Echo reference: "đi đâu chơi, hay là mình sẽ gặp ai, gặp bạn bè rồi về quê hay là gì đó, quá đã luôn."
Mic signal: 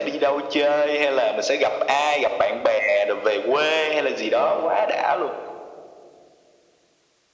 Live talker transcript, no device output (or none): none